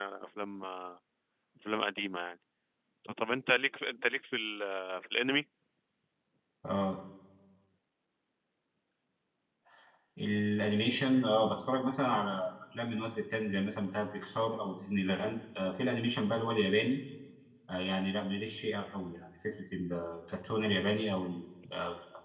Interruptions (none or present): none